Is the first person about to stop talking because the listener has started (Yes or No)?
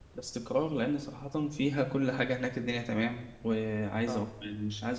No